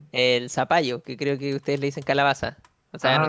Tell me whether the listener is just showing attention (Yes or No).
Yes